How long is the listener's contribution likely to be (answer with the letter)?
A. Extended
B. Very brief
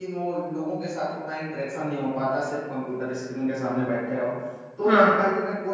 B